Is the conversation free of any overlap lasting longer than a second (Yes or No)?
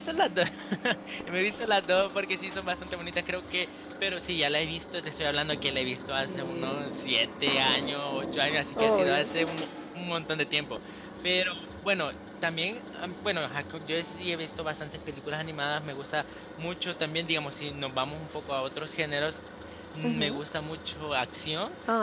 Yes